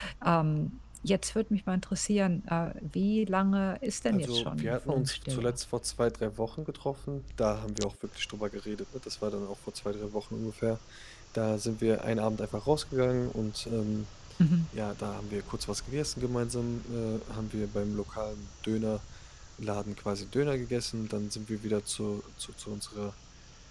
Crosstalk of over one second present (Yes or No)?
Yes